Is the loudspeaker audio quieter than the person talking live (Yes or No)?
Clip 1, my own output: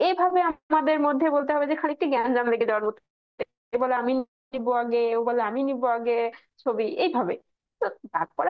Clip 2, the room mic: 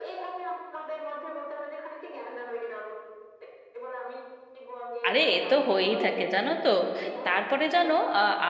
Yes